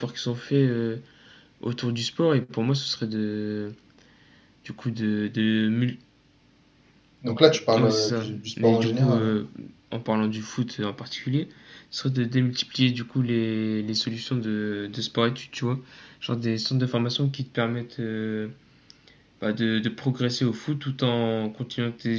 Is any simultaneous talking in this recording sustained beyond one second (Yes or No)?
Yes